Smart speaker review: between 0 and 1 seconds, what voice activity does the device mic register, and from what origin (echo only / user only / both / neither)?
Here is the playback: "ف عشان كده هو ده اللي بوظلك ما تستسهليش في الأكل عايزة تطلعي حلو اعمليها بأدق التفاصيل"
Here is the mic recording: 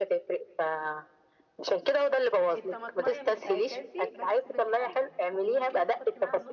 echo only